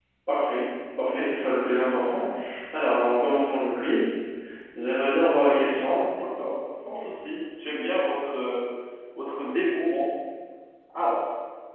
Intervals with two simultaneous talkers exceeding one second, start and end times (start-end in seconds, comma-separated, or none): none